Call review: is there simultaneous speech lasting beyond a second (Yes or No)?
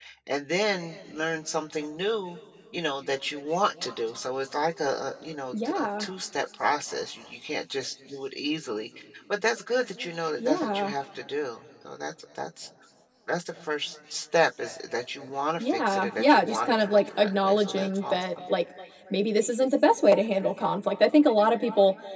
Yes